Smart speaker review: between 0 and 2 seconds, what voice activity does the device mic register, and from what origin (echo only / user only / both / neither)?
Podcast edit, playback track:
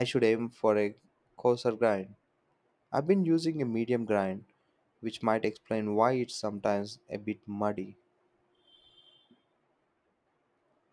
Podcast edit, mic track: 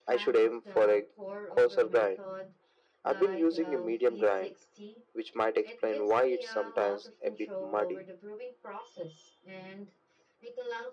both